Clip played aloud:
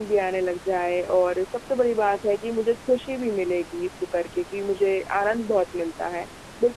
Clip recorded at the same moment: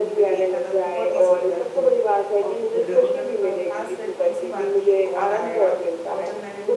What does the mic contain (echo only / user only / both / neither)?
both